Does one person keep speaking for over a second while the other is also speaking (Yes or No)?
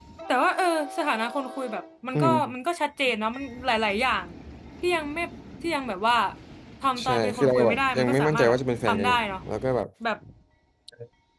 Yes